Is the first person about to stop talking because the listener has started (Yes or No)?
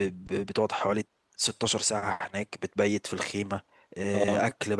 No